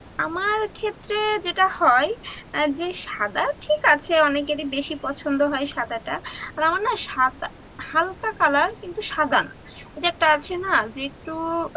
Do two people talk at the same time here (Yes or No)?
No